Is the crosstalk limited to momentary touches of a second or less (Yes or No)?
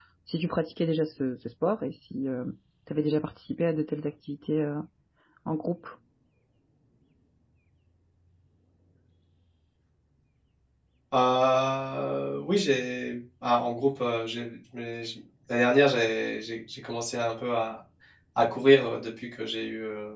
Yes